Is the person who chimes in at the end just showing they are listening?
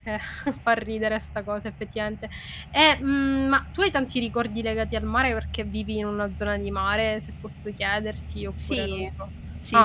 No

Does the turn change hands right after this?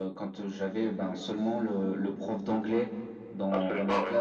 No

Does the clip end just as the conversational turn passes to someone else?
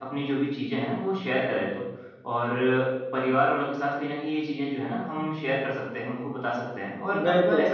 No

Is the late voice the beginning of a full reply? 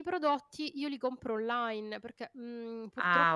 Yes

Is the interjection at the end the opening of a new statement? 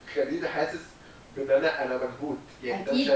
Yes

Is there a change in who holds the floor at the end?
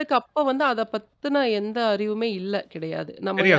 No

